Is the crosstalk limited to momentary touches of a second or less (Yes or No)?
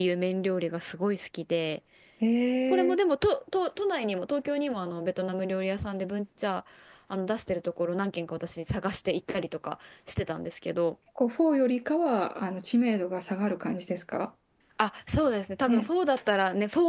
Yes